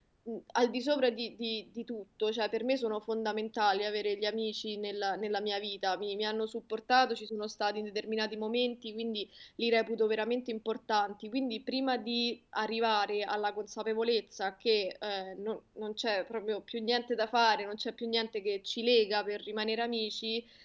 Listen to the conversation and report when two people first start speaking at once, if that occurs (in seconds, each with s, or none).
none